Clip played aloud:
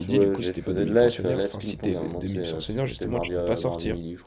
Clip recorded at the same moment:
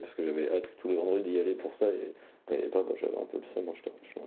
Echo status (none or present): none